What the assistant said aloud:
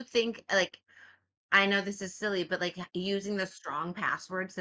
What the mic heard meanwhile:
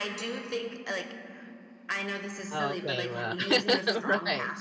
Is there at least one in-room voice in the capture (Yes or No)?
Yes